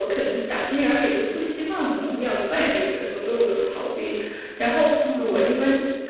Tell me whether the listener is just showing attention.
Yes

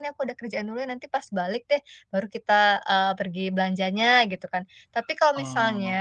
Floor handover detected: No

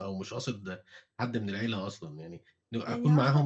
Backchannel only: No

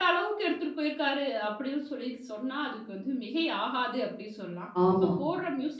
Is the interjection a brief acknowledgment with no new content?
Yes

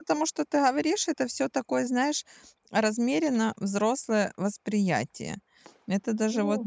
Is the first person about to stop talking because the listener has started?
No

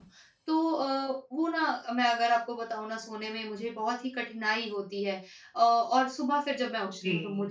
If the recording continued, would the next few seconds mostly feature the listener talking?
No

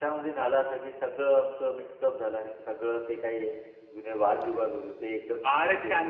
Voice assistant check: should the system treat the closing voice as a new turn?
Yes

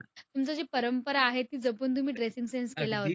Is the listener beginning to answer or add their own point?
Yes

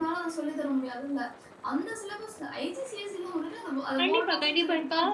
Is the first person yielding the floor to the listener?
Yes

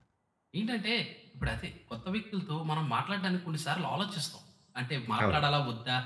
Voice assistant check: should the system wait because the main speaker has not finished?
Yes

